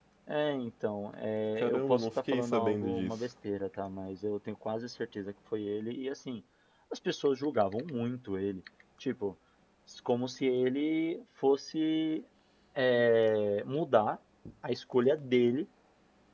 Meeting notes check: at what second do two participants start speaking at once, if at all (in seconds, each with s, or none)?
1.6 s